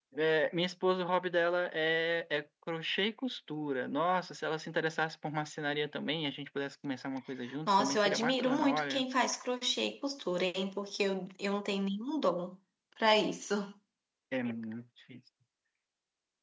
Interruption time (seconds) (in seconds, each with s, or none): 7.7 s